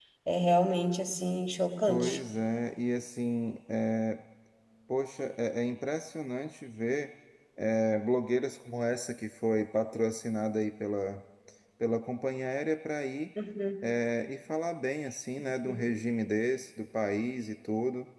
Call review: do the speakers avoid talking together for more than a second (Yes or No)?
Yes